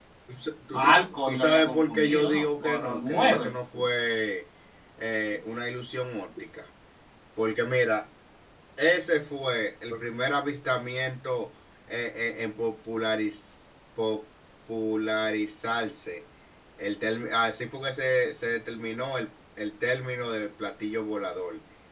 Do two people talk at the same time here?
Yes, from 0.7 s

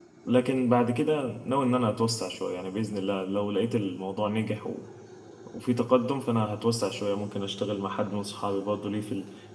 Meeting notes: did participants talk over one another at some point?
No

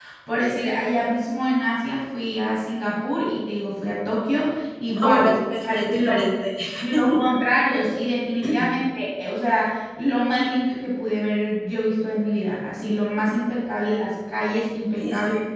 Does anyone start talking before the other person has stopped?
Yes, from 5.0 s

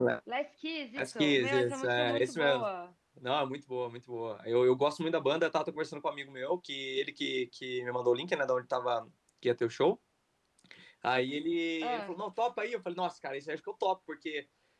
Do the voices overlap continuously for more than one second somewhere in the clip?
Yes, from 1.0 s

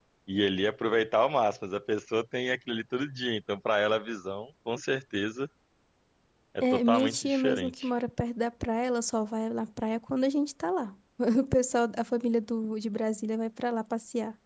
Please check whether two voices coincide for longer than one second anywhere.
Yes, from 6.6 s

